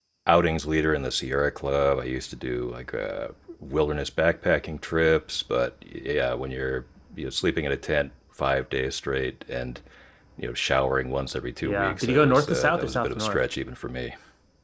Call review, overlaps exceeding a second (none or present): present